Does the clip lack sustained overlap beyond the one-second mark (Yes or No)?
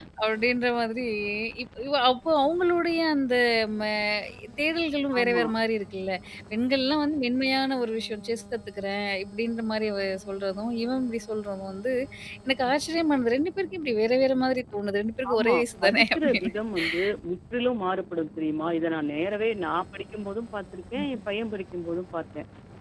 No